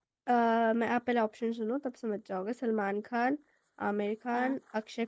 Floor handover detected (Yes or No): No